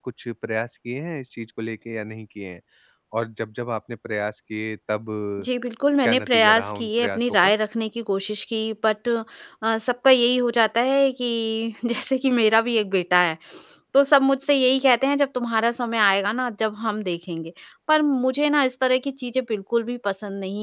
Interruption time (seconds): 6 s

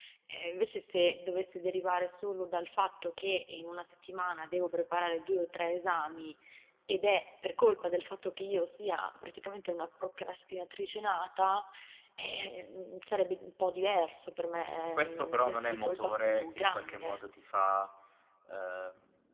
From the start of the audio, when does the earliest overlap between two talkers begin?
15 s

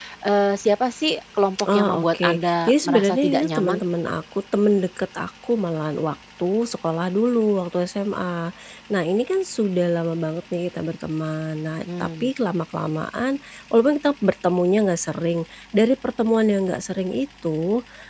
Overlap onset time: 2 s

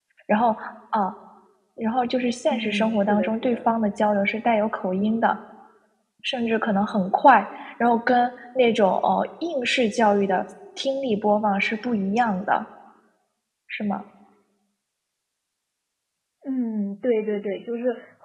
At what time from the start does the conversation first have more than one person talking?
3 s

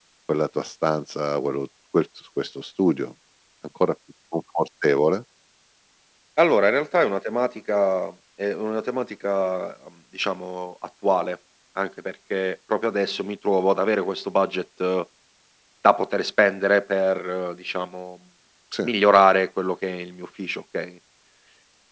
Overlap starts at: none

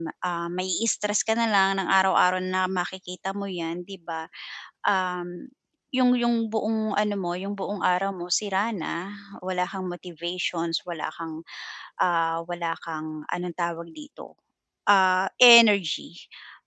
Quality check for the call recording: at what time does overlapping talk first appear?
none

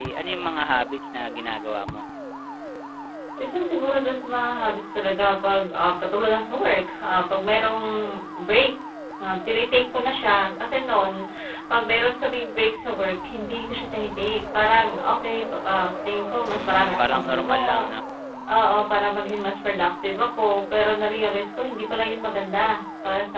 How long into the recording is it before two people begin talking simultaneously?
16 s

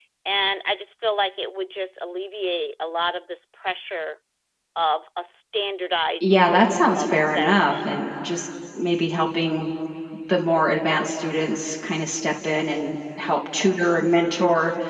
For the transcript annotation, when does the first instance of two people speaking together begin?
6 s

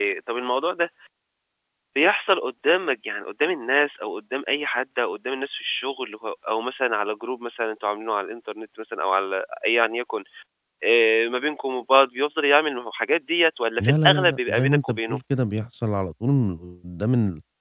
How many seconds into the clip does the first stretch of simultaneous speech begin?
14 s

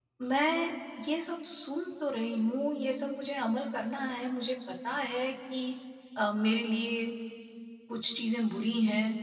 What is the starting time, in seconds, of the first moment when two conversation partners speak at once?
none

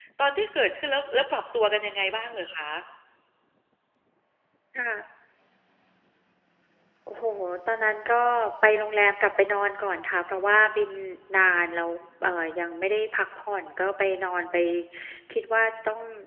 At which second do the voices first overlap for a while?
none

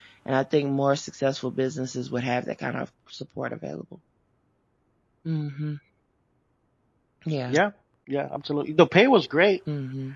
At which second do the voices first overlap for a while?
none

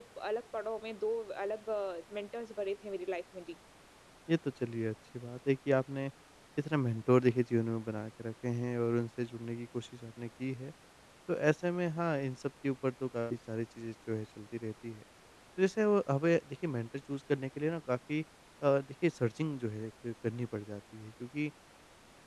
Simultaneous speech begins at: none

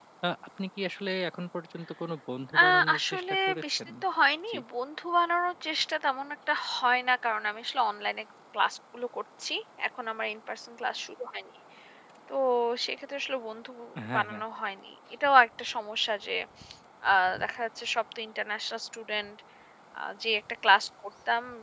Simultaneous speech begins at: 3 s

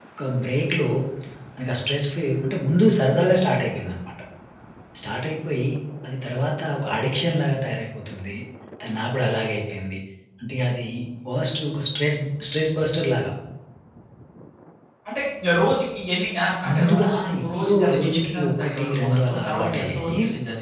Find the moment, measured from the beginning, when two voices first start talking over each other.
17 s

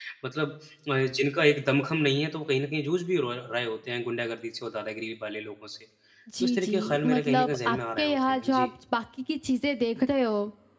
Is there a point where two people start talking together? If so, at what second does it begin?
6 s

